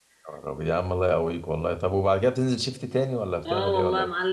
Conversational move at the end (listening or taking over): taking over